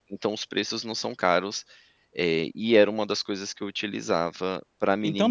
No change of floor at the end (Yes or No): No